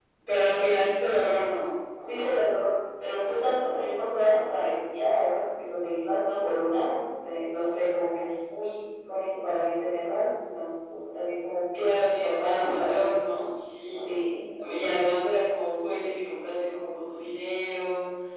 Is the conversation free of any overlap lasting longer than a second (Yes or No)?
No